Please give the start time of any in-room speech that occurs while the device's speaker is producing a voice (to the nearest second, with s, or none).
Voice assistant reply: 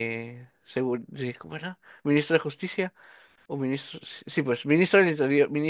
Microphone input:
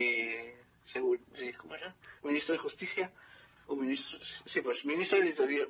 none